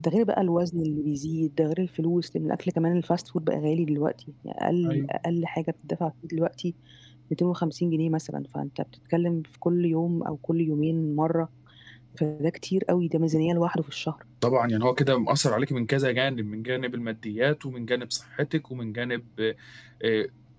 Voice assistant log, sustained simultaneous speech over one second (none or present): none